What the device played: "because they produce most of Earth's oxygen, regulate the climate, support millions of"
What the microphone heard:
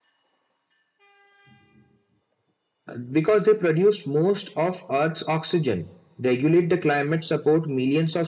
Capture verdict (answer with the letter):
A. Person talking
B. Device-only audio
B